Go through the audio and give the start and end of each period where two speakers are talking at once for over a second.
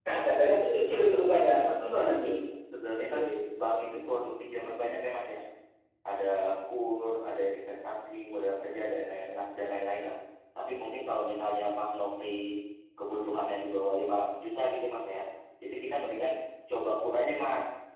0.8-2.2

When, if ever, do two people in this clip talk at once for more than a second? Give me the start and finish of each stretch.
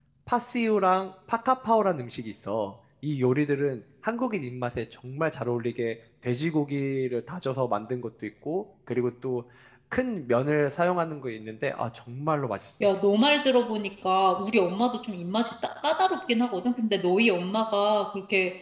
none

